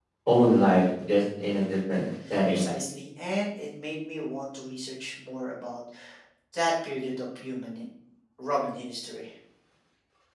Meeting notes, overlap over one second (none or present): none